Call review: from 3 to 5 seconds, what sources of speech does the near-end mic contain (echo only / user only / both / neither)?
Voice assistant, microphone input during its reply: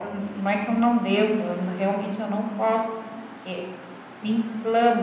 echo only